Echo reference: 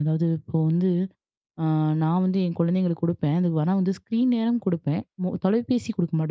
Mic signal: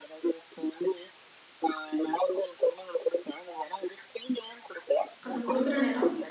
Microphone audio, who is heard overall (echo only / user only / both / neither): both